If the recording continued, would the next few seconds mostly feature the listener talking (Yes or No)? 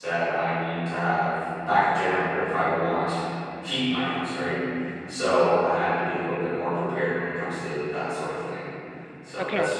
No